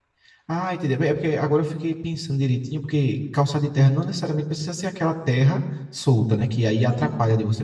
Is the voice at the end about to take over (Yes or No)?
No